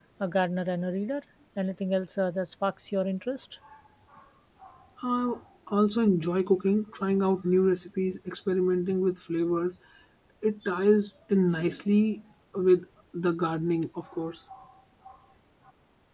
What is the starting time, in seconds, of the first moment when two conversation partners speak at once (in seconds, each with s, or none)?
none